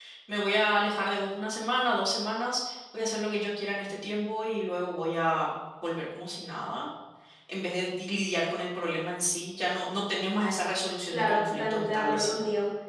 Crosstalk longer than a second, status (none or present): present